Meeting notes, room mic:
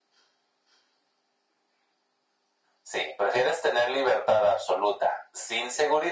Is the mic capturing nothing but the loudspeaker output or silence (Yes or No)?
Yes